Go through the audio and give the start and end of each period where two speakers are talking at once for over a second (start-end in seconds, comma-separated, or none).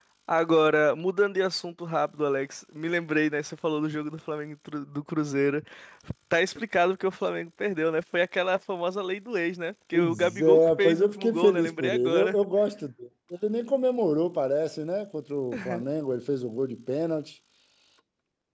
9.9-12.4